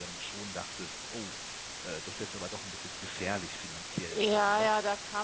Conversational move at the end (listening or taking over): taking over